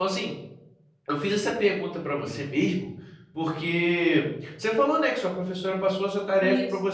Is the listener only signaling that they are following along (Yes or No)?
Yes